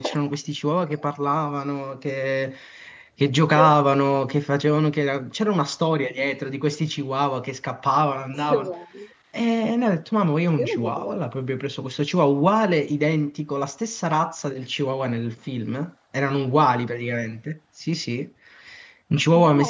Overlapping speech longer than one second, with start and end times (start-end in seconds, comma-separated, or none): none